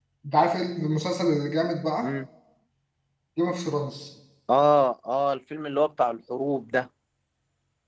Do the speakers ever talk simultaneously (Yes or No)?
No